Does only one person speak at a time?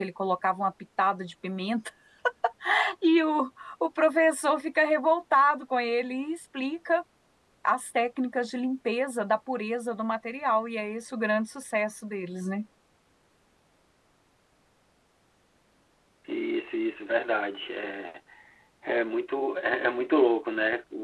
Yes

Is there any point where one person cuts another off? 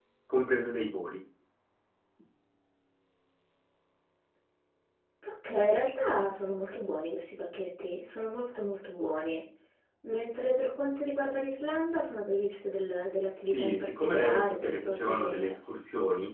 Yes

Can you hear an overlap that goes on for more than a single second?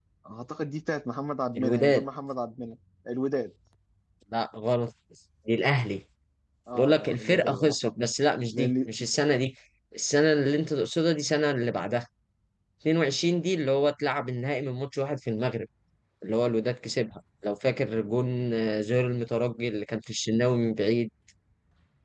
Yes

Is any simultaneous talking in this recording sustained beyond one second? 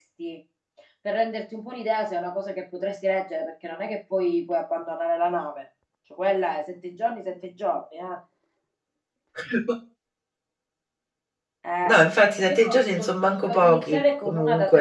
Yes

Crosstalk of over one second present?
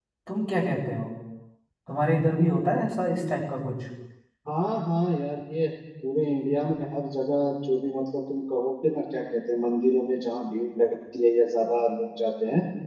No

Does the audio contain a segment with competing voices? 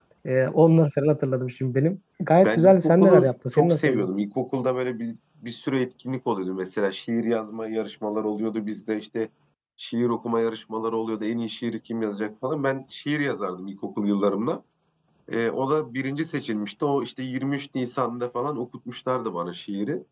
Yes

